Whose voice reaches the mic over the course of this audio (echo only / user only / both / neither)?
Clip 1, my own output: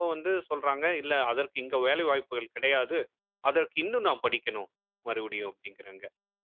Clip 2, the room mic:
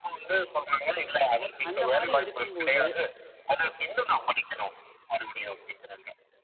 both